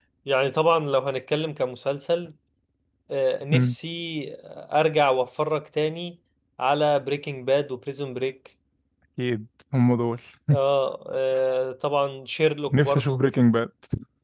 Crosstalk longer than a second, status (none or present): none